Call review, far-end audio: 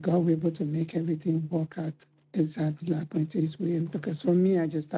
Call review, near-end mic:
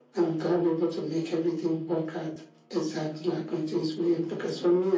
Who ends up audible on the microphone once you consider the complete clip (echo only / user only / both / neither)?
echo only